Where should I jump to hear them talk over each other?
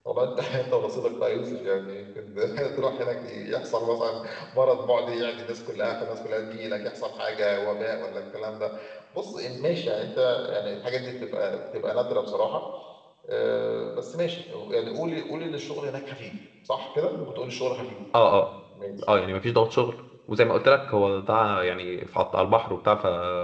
none

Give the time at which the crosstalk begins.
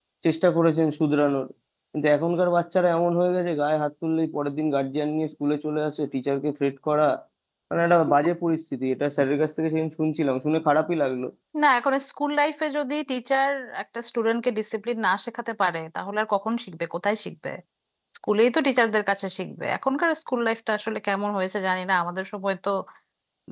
none

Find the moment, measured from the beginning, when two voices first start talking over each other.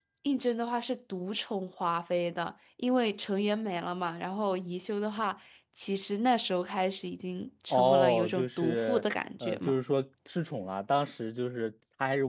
7.7 s

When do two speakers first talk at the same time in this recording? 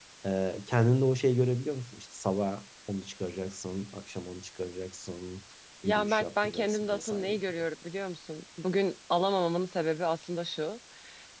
5.8 s

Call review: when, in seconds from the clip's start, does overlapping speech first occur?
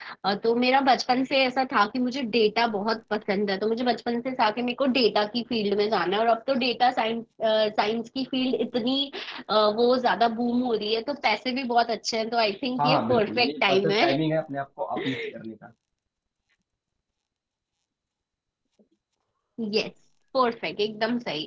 12.8 s

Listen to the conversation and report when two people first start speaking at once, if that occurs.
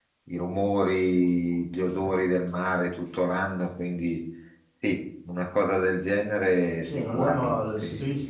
6.8 s

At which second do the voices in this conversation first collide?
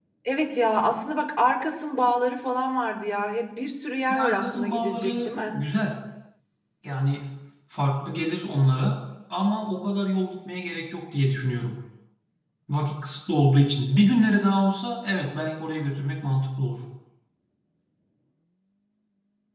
4.1 s

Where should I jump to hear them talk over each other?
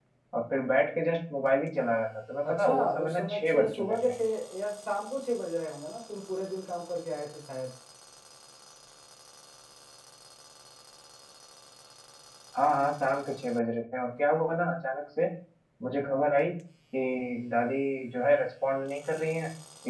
2.4 s

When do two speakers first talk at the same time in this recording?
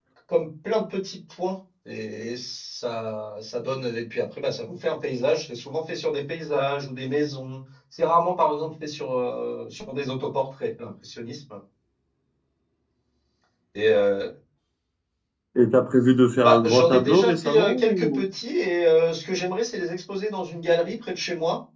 16.4 s

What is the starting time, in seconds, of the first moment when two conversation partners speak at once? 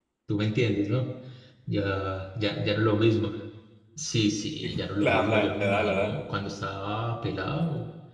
4.6 s

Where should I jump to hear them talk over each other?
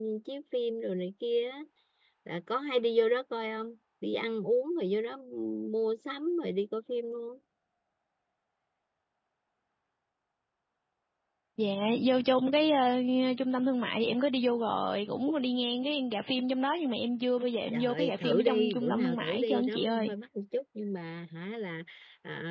17.7 s

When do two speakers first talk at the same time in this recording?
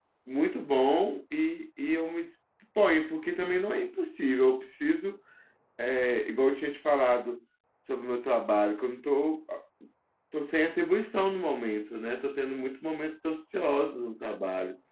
none

